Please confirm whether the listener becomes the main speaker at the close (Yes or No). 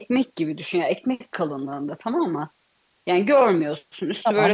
Yes